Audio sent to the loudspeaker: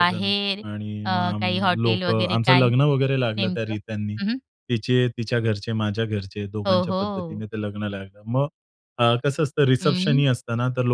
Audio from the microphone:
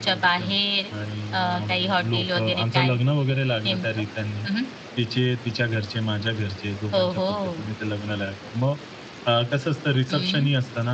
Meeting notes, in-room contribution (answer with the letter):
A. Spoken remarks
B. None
B